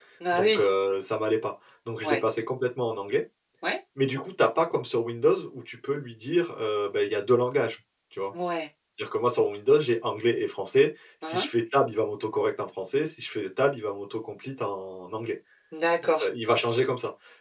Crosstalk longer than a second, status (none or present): none